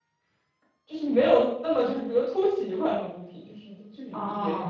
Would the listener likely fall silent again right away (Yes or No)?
No